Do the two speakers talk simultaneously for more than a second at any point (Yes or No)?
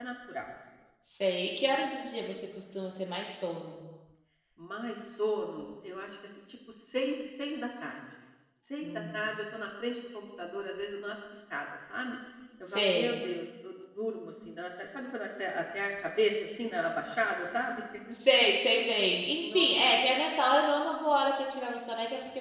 No